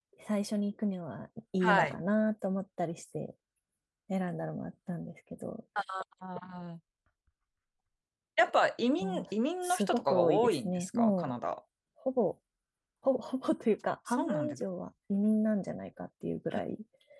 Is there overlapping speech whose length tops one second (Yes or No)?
Yes